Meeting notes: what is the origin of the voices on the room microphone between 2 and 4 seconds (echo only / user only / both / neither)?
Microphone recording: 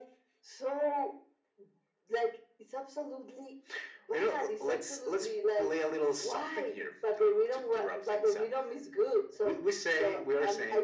echo only